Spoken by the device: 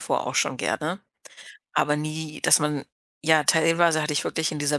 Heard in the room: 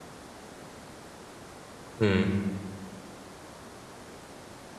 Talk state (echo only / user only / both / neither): user only